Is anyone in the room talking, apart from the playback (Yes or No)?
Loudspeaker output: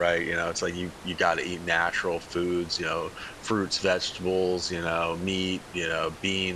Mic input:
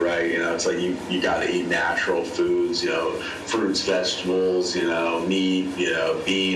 No